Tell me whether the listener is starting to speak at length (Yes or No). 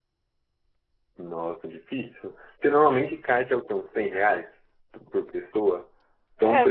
No